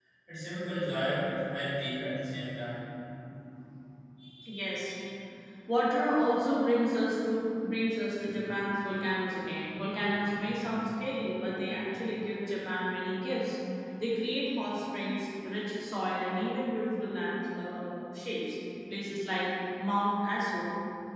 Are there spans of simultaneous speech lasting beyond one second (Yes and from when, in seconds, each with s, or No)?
No